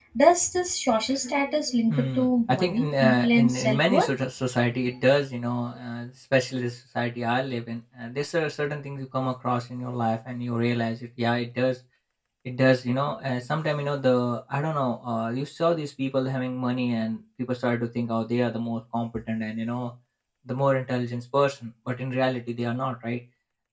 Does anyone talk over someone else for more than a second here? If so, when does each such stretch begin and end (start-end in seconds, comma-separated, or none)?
1.9-4.1